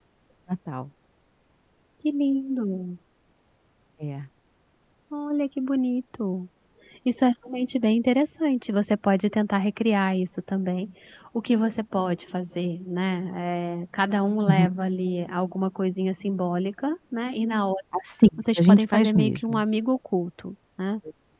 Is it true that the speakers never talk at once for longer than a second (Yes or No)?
No